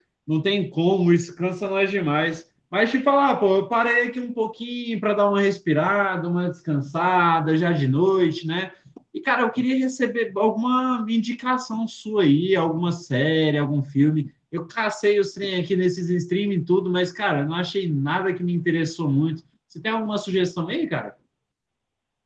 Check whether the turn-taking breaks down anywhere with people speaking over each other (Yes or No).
No